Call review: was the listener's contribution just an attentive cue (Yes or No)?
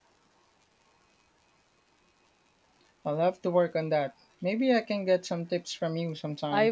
No